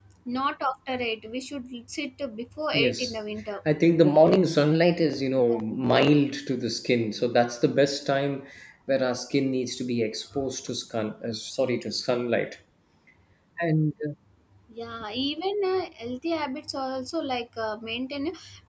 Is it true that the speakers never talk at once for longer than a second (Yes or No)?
Yes